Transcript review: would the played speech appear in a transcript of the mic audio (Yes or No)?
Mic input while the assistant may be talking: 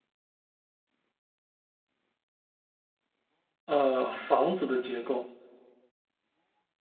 No